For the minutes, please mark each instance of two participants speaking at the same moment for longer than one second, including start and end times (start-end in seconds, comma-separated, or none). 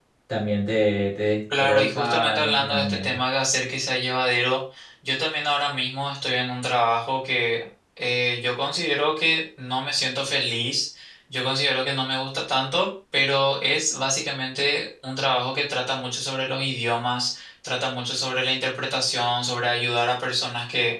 1.6-3.2